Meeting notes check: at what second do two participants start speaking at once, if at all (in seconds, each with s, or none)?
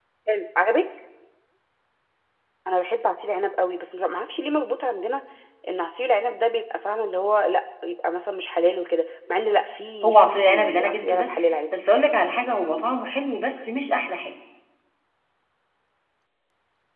10.0 s